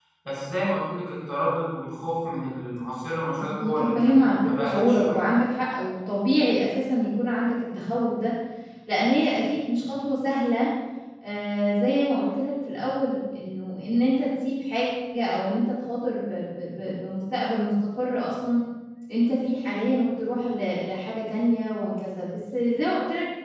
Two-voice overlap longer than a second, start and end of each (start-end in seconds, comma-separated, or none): 3.4-5.2